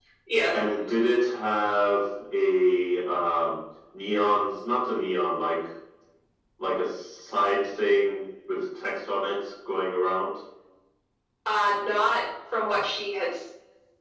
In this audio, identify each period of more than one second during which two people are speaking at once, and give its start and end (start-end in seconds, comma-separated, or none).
none